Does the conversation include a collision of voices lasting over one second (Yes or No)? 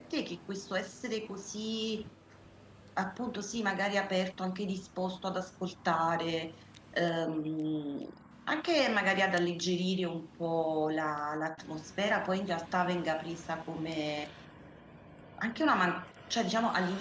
No